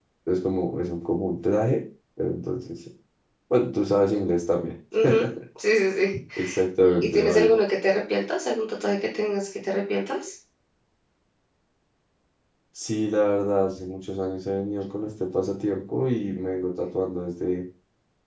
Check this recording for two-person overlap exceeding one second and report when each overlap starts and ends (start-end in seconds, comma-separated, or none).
none